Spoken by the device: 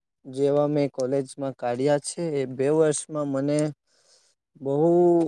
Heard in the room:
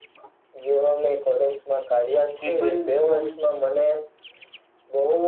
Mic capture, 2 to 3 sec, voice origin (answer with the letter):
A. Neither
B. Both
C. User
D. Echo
B